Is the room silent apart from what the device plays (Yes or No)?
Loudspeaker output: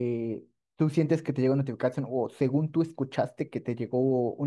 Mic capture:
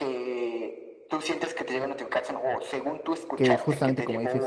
No